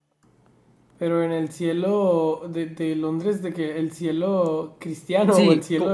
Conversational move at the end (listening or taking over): taking over